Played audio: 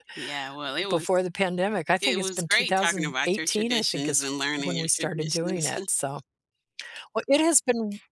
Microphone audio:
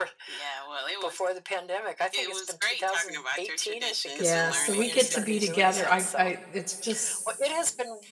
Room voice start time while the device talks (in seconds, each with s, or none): 4.2 s